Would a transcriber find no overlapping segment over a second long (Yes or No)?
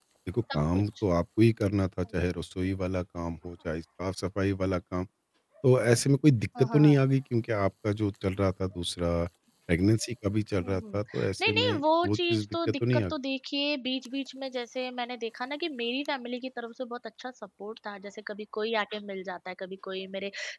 No